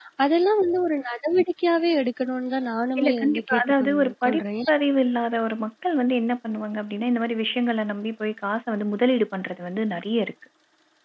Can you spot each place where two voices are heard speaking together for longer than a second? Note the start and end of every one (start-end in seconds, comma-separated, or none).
3.0-4.4